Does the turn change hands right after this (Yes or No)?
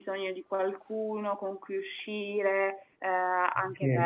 No